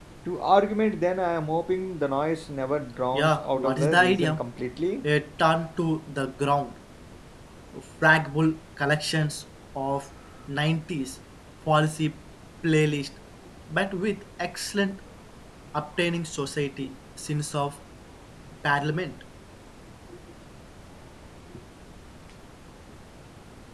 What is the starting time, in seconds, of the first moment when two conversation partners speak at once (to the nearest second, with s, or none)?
3 s